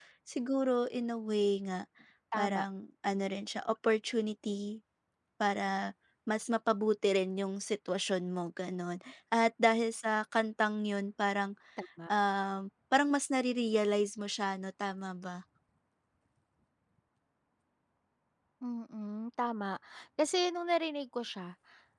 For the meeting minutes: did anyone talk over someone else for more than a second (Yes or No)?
No